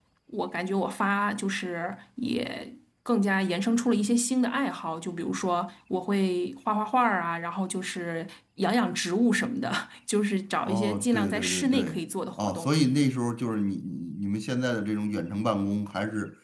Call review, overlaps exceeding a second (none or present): present